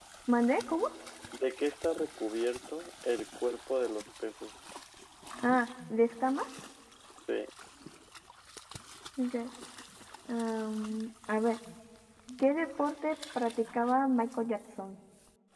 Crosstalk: none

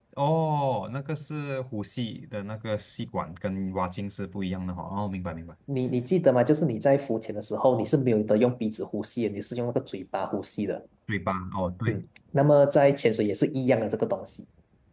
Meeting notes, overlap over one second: none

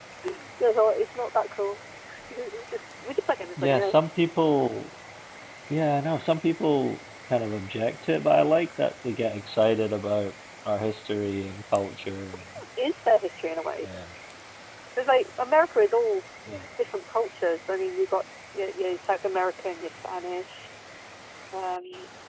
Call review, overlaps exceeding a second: none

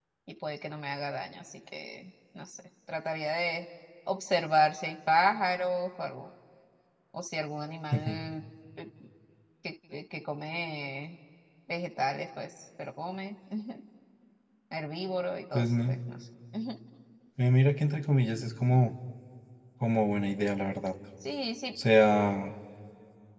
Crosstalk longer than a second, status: none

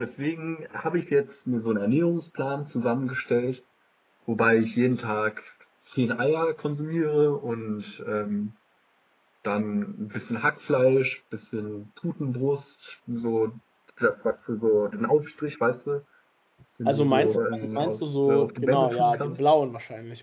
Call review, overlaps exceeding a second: present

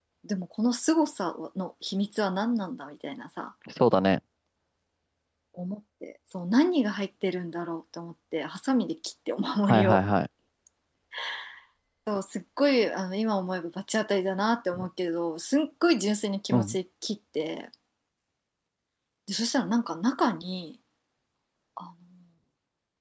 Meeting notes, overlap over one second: none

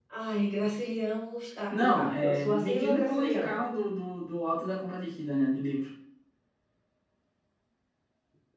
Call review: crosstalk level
present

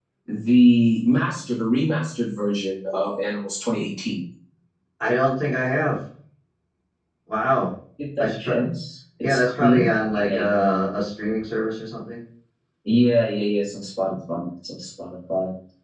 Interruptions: present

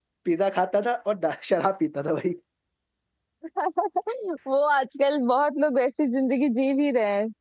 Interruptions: none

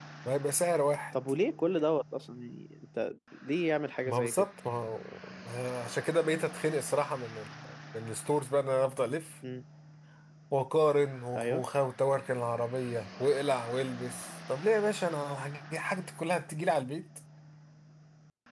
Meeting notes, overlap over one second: none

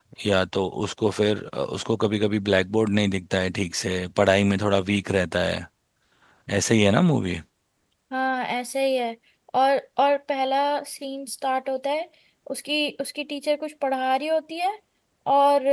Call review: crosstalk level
none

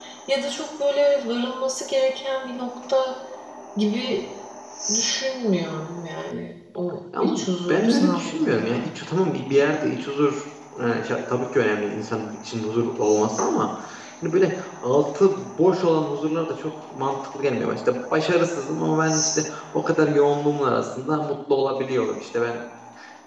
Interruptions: present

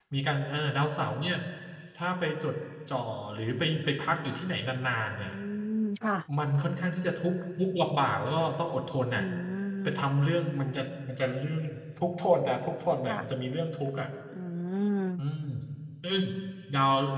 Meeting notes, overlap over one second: none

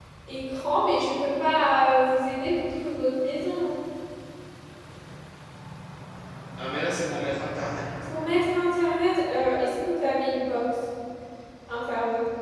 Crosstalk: none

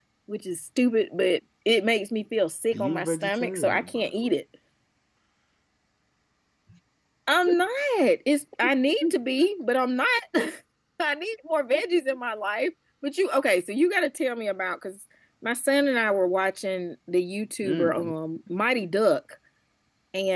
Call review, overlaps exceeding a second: present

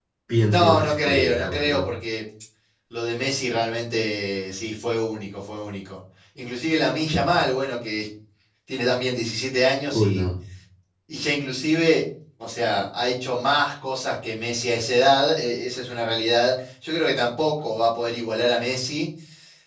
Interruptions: present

